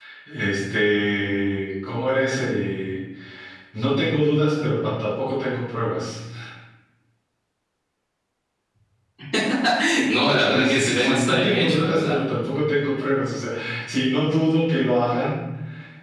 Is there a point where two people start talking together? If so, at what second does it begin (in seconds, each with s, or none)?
10.5 s